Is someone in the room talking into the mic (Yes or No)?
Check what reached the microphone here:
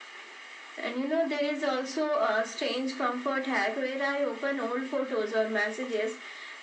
No